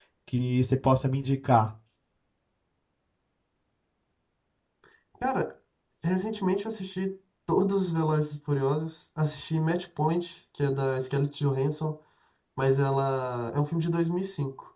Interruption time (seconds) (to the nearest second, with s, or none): none